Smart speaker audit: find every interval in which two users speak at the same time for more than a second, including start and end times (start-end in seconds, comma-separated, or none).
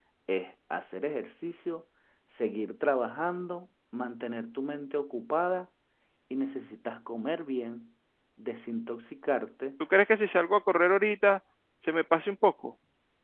none